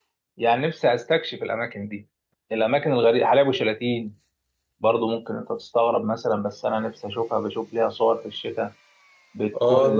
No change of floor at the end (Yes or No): No